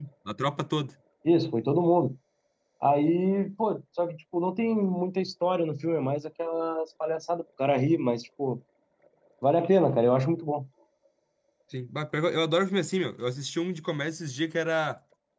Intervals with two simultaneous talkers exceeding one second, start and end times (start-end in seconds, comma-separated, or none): none